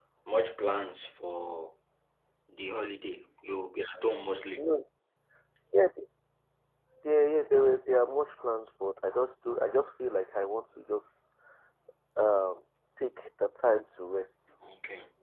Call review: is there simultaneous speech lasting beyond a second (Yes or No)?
No